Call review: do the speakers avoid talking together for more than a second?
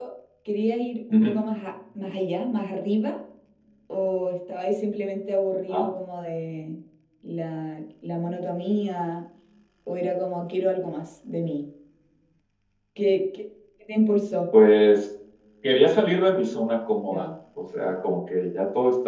Yes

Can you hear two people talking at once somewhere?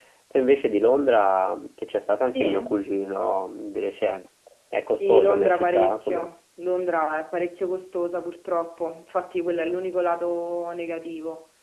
Yes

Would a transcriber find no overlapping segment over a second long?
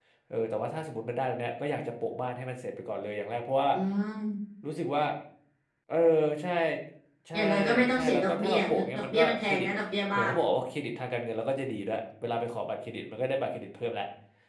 No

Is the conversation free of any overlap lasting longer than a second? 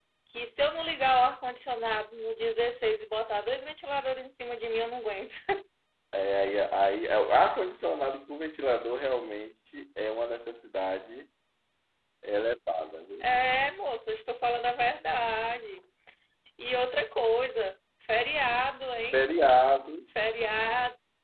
Yes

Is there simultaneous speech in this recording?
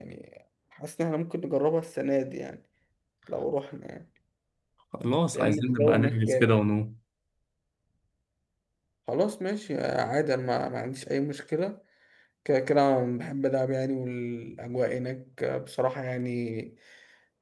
Yes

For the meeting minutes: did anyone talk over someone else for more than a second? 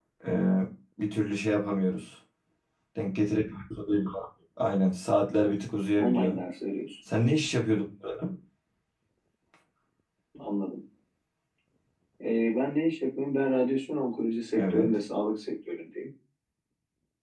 No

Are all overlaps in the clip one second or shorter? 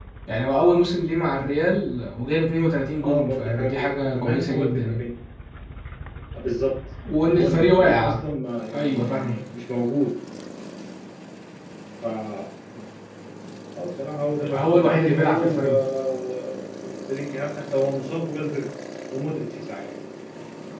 No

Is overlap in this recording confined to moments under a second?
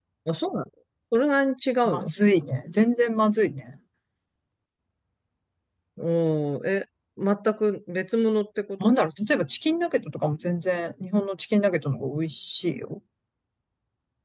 Yes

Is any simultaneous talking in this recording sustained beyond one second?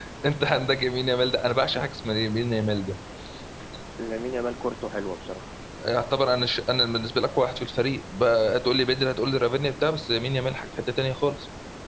No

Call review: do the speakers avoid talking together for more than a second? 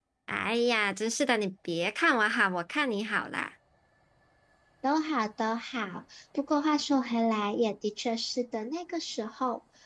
Yes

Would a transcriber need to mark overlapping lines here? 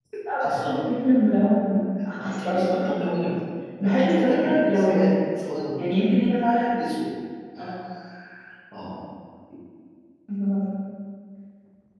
Yes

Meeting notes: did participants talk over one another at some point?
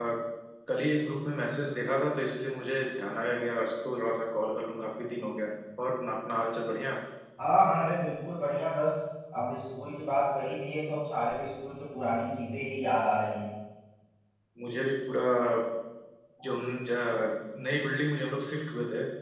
No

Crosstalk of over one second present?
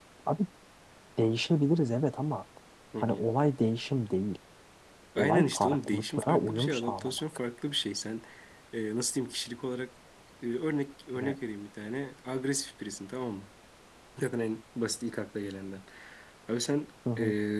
Yes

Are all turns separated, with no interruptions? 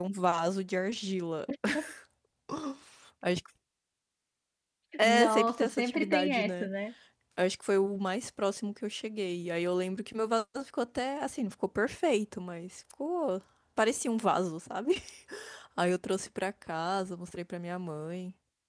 No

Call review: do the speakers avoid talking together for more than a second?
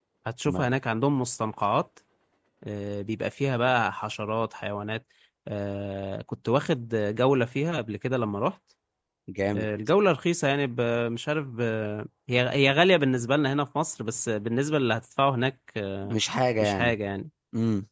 Yes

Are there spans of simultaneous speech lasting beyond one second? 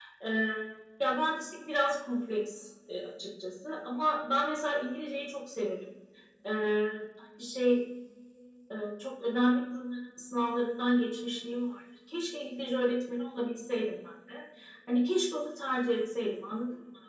No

